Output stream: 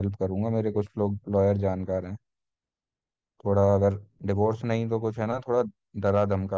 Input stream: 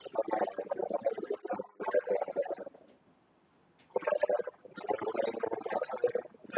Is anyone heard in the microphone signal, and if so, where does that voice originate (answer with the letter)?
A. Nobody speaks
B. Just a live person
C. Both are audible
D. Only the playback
D